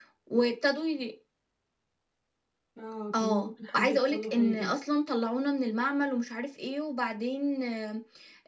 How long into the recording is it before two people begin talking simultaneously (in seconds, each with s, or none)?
3.2 s